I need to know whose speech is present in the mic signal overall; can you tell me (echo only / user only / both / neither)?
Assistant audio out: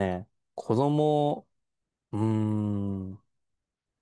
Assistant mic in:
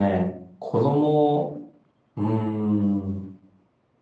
echo only